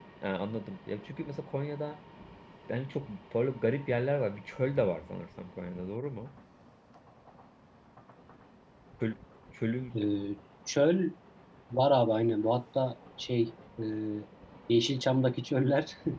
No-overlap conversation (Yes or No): Yes